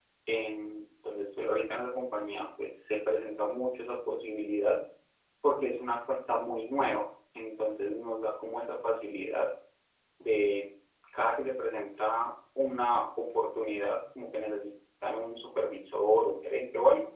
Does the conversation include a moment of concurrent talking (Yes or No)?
No